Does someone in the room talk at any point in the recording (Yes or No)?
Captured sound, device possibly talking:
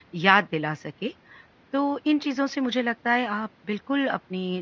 Yes